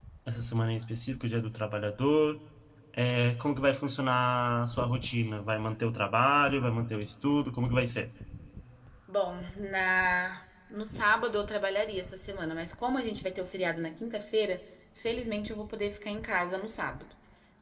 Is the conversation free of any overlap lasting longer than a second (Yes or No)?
Yes